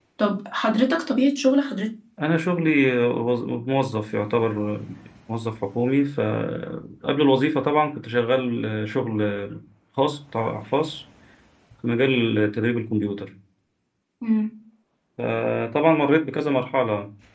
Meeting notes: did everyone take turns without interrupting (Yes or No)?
Yes